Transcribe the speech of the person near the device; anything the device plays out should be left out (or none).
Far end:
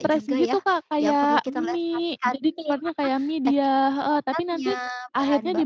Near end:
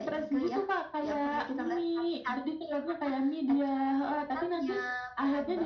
none